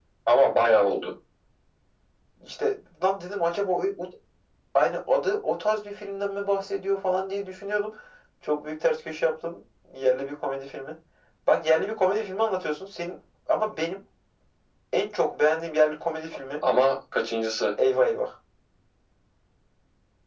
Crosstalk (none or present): none